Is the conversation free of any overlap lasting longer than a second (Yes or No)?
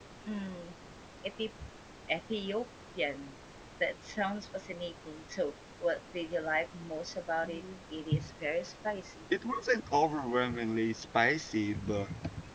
Yes